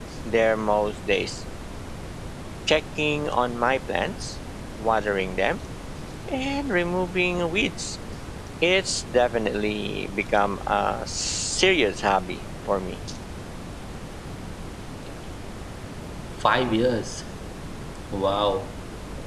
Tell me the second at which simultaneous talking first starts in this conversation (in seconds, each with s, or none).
none